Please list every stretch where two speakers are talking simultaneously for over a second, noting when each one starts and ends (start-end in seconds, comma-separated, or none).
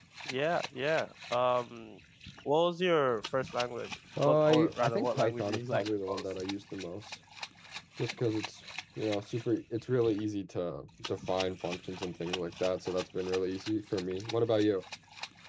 4.2-6.2